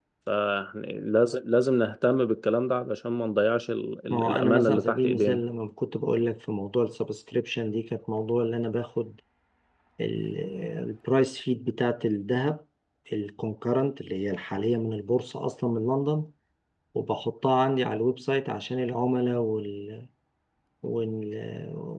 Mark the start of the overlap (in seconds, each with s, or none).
4.1 s